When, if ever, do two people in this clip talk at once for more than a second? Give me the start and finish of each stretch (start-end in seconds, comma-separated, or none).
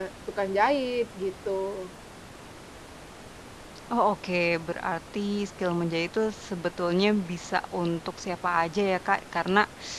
none